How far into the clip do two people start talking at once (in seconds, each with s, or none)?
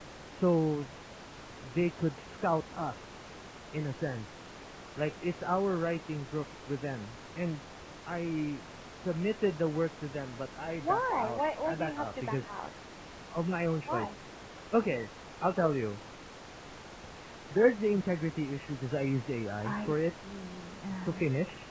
10.8 s